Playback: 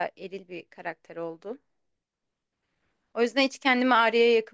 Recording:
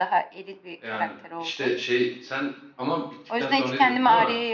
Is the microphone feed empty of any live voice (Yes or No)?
No